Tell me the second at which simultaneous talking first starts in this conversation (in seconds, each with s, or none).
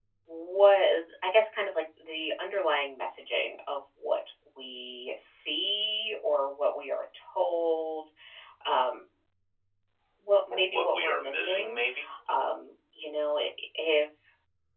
10.5 s